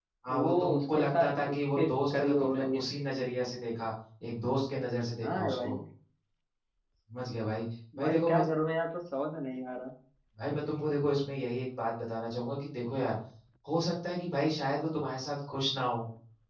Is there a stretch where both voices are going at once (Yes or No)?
Yes